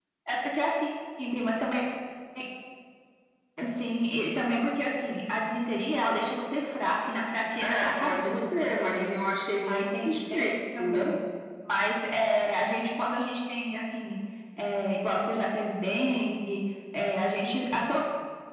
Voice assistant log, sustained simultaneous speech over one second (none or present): present